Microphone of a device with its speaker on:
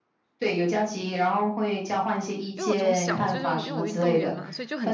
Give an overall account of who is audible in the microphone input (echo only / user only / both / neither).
both